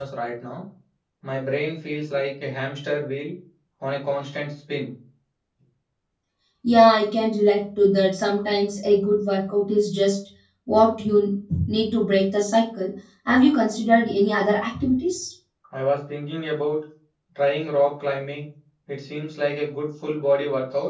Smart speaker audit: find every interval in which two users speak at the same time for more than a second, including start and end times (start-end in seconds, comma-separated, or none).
none